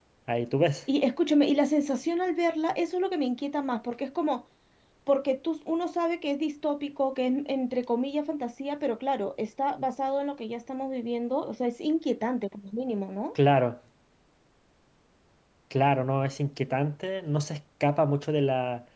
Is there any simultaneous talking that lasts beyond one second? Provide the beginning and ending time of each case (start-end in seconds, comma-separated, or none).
none